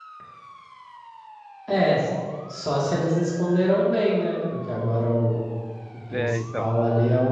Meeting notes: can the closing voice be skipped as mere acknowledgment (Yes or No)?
Yes